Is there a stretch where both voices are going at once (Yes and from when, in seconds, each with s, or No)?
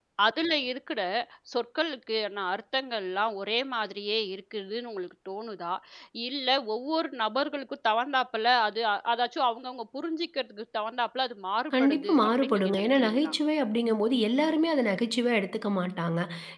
Yes, from 11.7 s